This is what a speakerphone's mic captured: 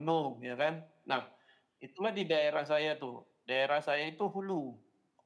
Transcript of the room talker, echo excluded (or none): none